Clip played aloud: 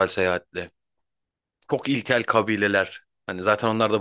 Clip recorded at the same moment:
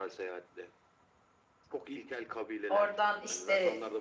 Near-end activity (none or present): present